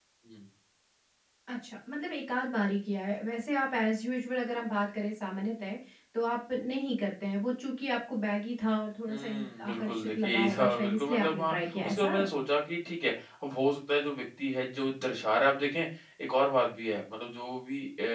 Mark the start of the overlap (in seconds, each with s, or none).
9.1 s